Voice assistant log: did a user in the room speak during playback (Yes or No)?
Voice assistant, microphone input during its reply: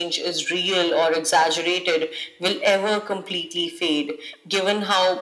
No